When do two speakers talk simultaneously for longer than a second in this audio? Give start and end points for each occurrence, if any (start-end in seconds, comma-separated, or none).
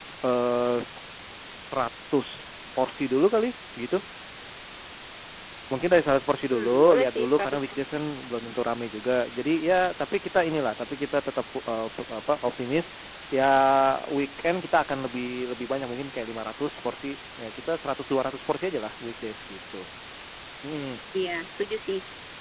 6.5-8.0